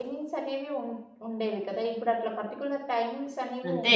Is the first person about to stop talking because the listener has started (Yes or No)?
Yes